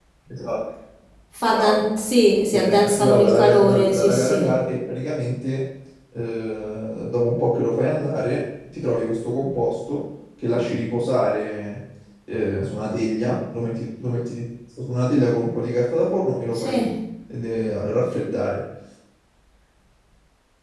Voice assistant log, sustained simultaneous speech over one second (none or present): present